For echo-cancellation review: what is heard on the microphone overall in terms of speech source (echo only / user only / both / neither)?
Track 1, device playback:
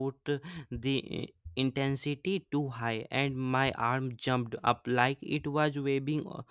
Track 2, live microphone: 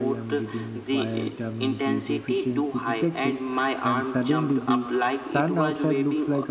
both